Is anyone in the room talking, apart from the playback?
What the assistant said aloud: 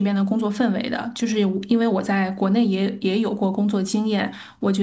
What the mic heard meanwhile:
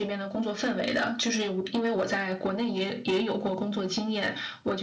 No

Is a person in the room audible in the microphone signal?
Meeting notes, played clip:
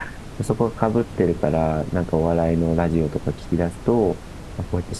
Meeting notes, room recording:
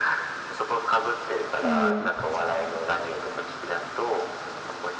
Yes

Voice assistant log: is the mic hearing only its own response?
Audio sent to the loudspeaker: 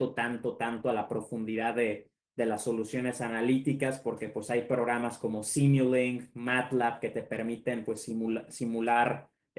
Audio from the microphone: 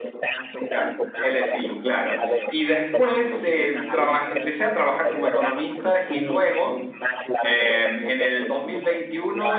No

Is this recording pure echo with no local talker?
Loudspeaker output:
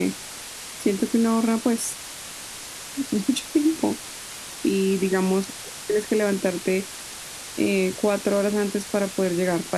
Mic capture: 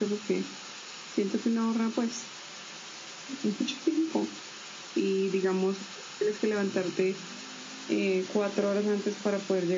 Yes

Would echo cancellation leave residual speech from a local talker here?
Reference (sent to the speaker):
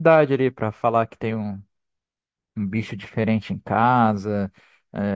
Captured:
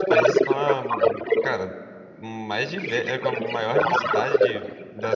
Yes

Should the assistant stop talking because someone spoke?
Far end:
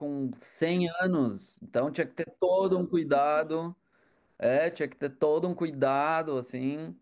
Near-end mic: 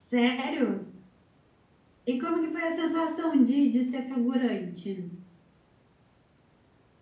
Yes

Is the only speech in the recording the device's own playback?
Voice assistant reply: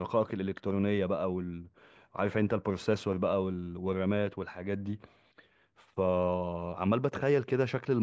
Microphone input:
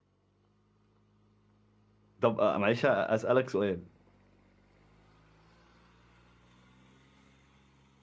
No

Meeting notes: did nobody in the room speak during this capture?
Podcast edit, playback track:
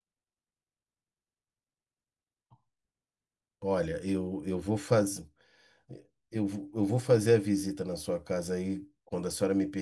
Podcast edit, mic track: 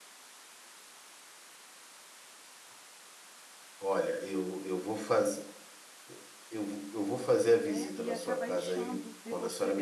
No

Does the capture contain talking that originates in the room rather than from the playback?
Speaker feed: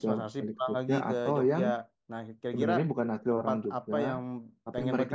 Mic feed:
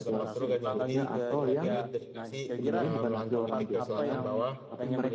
Yes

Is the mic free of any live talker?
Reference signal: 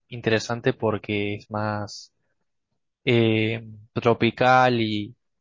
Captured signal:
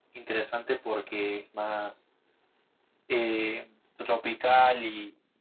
Yes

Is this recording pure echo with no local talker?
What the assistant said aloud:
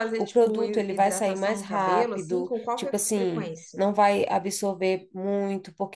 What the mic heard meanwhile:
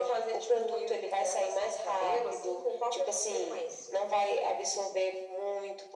Yes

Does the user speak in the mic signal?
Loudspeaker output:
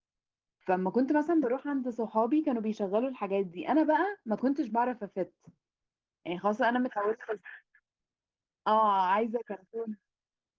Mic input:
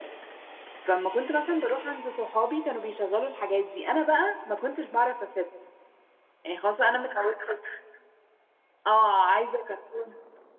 No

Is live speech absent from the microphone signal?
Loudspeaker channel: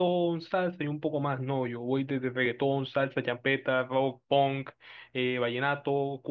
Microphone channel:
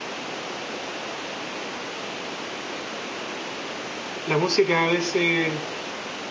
No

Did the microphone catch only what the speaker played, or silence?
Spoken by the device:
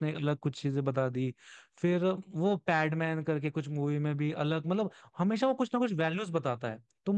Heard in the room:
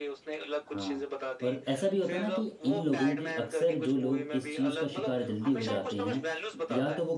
No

